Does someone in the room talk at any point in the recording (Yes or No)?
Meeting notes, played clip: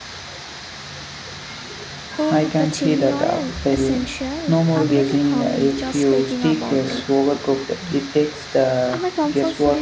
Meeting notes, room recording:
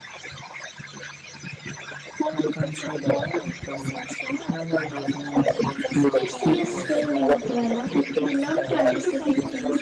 Yes